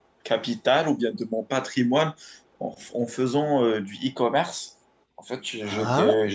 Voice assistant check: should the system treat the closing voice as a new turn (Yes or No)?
No